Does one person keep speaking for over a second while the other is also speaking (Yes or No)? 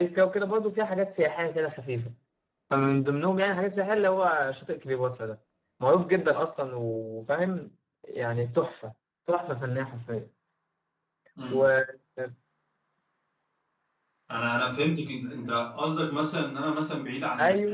No